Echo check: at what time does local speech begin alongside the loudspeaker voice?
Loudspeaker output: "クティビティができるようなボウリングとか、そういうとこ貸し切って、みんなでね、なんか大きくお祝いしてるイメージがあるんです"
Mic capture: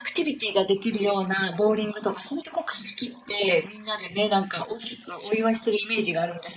none

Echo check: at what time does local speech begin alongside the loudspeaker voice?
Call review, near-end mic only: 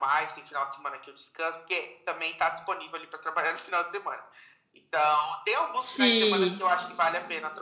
5.8 s

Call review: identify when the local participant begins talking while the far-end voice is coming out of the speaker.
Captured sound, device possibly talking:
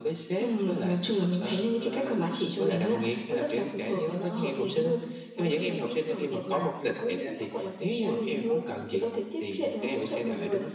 none

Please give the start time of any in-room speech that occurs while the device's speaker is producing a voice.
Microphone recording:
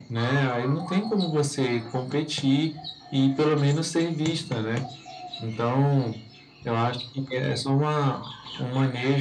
none

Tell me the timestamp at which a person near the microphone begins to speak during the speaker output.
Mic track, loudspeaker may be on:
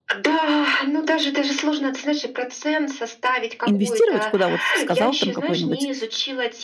3.6 s

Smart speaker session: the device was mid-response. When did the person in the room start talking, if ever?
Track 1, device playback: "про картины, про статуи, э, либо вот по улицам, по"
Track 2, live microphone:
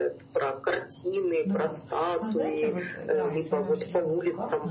1.5 s

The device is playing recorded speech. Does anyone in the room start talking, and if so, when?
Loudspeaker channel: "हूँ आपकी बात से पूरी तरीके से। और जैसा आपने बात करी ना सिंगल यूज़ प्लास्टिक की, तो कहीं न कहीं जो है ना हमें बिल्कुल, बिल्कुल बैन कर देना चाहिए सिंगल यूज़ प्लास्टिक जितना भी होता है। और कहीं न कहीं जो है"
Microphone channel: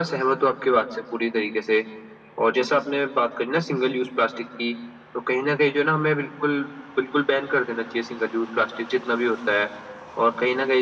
none

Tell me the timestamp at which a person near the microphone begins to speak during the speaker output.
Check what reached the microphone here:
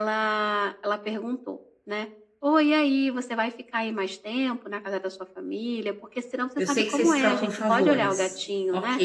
6.6 s

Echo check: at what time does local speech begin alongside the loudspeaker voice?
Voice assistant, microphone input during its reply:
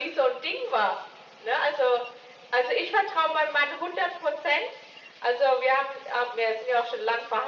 none

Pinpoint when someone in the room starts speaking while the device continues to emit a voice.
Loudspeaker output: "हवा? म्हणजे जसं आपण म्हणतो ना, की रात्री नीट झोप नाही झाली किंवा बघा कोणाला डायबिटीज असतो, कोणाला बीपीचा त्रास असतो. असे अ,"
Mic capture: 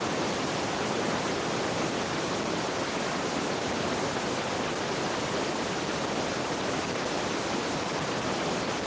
none

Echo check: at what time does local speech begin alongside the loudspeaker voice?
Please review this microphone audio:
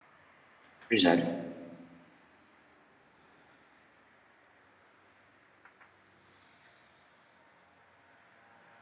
0.9 s

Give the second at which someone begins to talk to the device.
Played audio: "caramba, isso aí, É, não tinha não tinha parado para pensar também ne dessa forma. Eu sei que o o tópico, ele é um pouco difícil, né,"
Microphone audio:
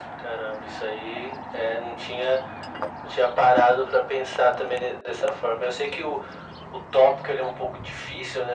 none

